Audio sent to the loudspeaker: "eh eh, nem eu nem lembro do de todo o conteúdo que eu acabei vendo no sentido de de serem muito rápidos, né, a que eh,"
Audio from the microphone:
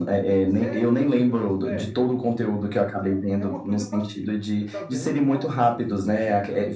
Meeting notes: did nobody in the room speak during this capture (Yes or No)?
No